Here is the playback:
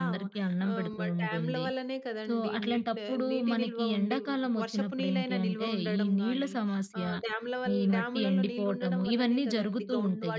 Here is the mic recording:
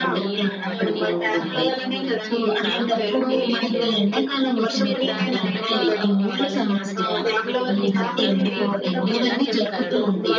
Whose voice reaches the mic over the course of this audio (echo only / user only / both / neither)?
both